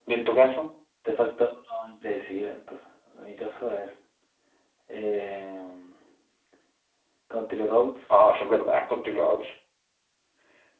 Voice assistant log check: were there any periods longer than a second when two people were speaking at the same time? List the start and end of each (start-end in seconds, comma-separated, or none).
none